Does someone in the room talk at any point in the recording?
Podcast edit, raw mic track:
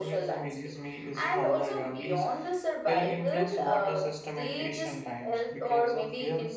Yes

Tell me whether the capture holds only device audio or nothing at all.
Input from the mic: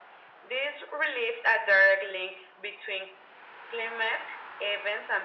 Yes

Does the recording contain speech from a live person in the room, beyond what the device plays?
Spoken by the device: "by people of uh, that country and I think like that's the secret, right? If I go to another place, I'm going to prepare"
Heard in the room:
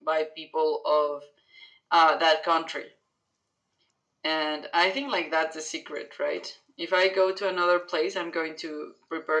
No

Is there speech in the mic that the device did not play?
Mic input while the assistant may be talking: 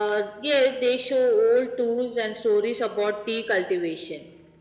No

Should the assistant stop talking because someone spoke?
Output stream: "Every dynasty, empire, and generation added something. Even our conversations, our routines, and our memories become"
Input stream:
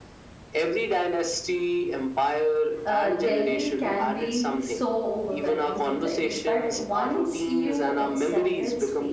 Yes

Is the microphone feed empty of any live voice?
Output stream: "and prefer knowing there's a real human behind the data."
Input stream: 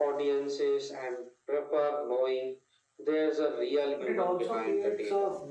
No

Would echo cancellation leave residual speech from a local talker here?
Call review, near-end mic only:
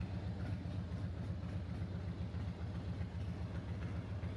No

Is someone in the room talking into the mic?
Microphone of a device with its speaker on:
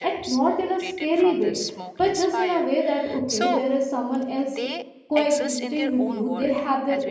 Yes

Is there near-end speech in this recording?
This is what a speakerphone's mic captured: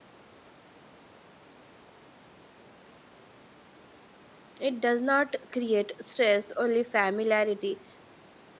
Yes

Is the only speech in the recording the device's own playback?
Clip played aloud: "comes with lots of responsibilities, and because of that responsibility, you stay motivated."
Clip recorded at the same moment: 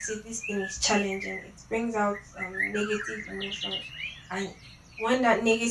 No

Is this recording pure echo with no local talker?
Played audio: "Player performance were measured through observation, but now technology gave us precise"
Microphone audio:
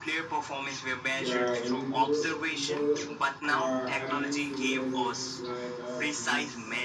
No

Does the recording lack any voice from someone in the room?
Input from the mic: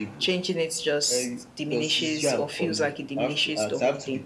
Yes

